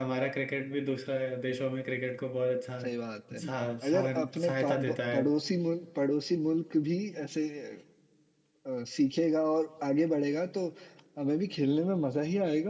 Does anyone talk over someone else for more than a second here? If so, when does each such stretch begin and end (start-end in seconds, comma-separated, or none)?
3.8-5.2